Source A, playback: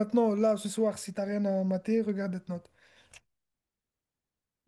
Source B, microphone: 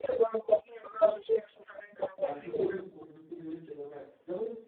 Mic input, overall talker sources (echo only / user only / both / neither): both